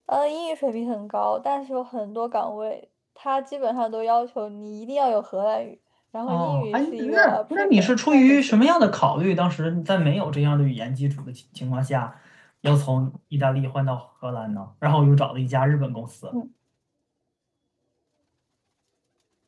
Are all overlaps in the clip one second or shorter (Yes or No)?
No